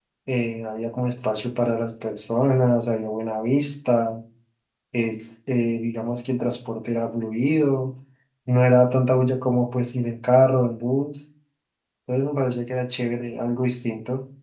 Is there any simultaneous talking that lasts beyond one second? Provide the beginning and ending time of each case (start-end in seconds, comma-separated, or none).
none